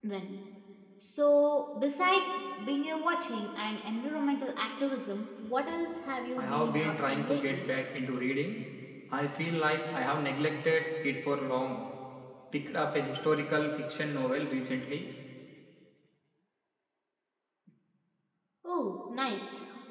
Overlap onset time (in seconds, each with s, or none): 6.4 s